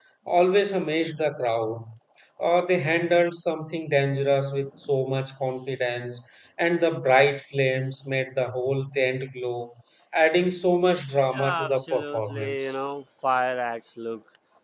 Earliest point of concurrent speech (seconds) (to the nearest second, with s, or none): 11 s